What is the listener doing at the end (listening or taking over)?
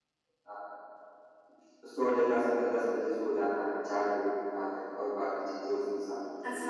taking over